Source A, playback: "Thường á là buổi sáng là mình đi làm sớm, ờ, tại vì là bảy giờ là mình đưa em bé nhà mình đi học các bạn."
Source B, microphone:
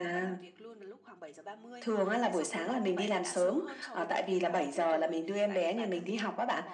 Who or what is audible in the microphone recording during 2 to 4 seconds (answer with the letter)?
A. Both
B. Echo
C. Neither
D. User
A